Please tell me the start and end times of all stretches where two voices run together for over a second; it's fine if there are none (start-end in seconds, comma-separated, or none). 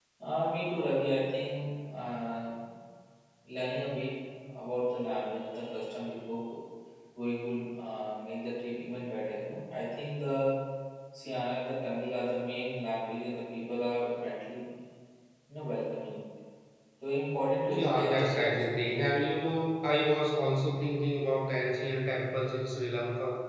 17.8-19.2